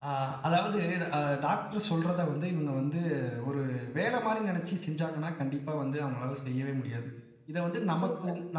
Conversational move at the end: listening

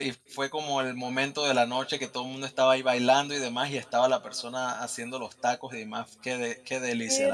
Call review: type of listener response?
taking over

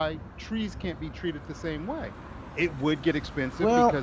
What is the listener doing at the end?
listening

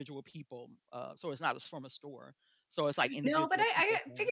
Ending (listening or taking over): taking over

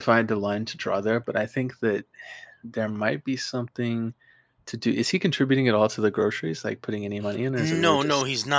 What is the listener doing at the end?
taking over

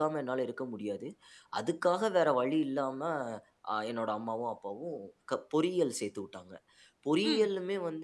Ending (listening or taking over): listening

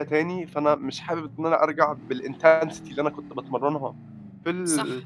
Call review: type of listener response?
listening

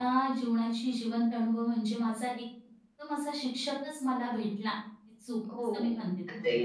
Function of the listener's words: taking over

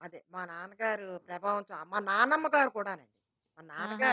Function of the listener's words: taking over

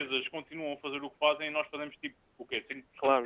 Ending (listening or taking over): taking over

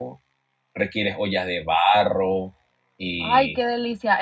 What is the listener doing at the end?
taking over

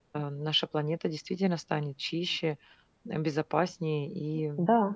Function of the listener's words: taking over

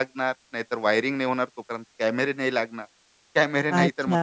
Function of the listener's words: taking over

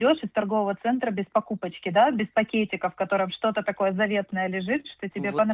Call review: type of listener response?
listening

